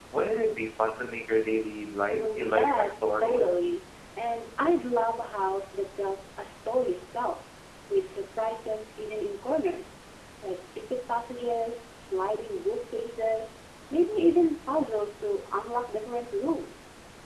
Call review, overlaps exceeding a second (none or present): present